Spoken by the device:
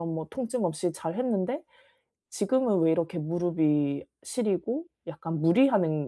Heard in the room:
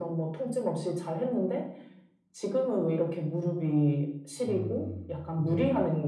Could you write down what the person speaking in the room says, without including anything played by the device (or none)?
음. 네네.